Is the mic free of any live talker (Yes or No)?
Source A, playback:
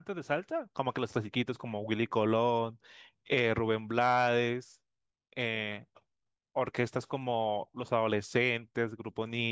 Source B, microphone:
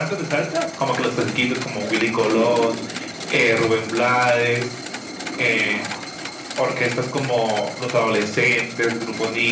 Yes